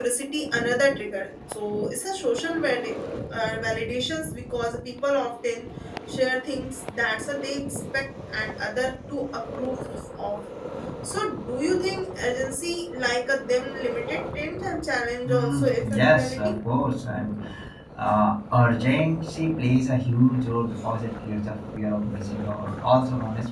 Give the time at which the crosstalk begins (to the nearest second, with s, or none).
15 s